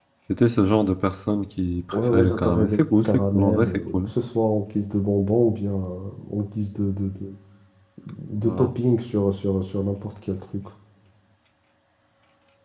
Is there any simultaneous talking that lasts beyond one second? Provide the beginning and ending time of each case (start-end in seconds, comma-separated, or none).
2.1-4.1